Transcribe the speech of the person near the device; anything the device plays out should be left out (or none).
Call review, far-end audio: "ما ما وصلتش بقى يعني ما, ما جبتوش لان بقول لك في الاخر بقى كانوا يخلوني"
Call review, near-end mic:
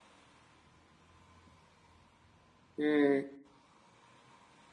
امم